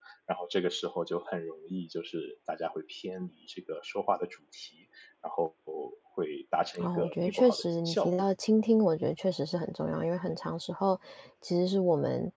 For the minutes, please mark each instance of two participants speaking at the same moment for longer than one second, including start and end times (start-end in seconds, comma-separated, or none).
6.8-8.2